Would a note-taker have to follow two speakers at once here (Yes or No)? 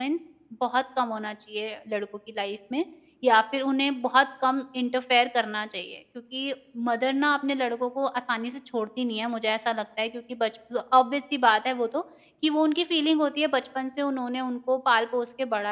No